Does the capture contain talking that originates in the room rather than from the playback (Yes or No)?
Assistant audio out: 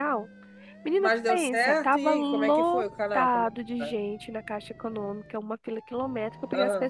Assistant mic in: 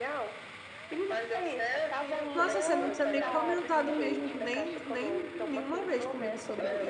Yes